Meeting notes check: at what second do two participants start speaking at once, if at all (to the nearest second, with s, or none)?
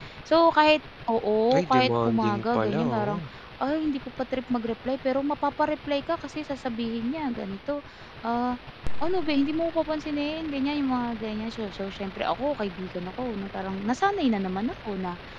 1 s